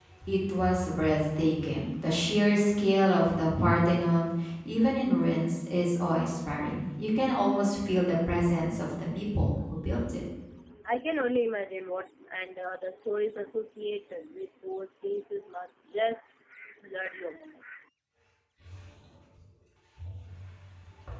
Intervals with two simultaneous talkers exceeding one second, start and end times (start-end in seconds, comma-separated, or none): none